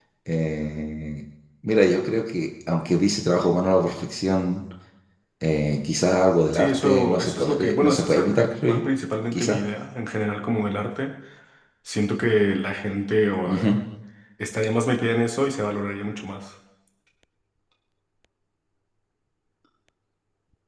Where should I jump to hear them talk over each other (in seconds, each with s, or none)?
6.5 s